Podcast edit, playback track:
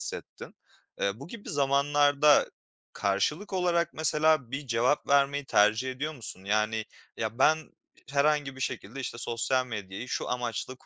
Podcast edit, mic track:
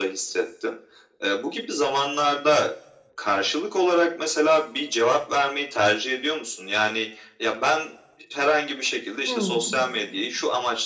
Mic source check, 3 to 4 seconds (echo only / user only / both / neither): echo only